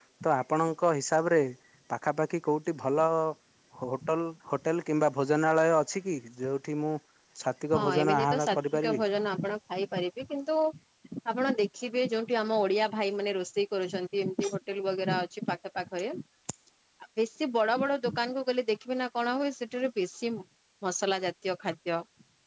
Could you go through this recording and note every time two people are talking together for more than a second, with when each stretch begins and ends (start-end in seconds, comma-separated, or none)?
7.7-9.0